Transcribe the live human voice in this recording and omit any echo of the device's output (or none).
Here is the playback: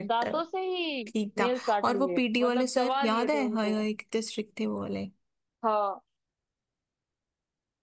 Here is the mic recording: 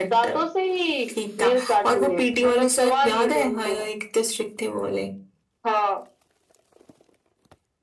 none